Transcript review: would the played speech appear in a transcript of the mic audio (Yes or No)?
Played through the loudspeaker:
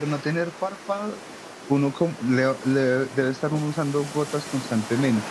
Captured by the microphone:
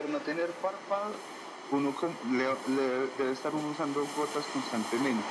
Yes